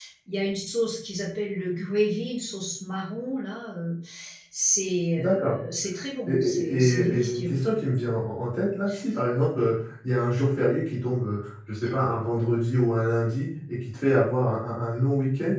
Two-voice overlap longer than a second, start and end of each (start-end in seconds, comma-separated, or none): 6.3-7.5